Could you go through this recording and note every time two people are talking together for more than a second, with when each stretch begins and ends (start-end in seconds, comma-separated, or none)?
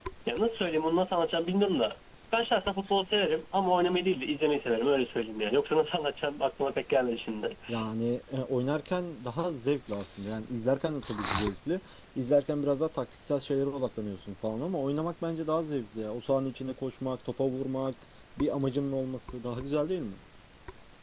none